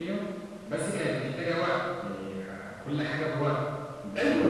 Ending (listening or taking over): taking over